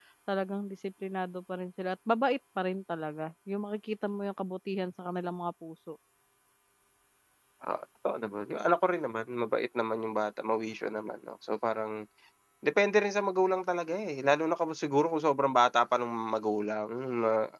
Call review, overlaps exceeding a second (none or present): none